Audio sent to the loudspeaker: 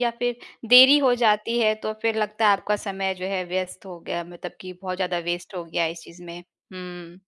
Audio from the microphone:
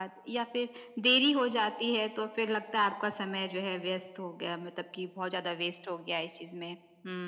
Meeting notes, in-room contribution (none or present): none